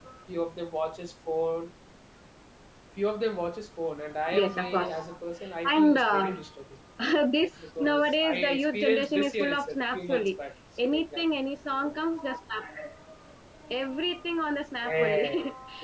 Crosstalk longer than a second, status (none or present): present